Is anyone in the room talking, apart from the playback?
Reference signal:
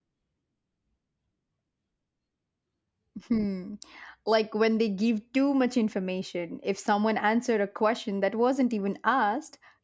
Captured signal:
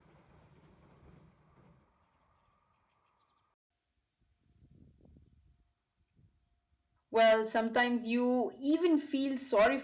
Yes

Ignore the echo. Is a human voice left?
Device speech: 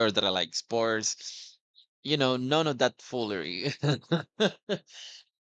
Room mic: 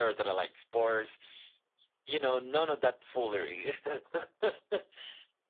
No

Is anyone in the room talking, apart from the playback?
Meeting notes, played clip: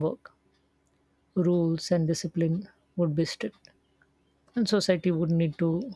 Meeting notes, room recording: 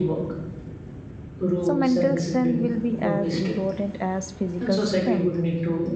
Yes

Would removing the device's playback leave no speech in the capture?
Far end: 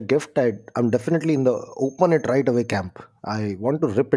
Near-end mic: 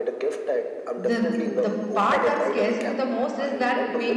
No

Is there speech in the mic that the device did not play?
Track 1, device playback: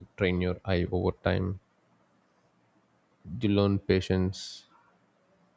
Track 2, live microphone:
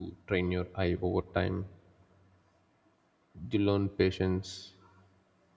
No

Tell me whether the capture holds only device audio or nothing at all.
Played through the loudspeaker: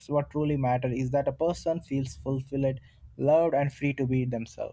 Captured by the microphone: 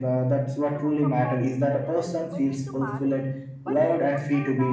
No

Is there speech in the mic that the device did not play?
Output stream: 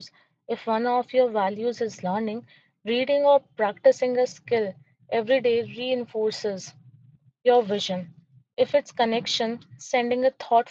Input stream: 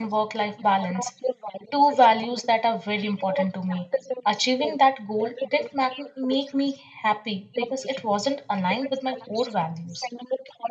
Yes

